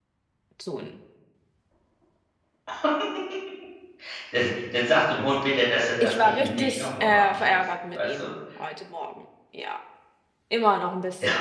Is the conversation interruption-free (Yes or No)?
No